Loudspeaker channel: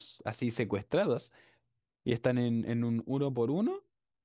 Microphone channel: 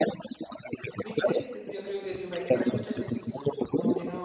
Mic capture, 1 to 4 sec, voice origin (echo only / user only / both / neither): both